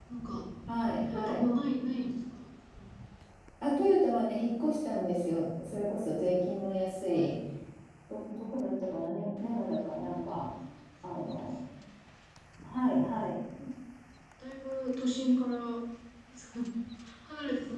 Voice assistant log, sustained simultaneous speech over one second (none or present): none